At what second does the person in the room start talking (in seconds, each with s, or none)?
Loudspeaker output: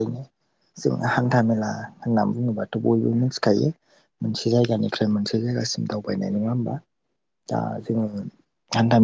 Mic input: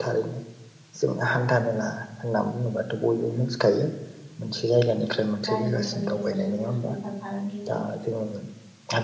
5.5 s